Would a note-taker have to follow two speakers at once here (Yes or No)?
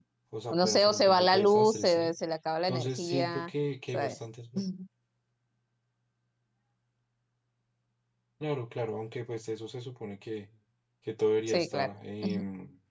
Yes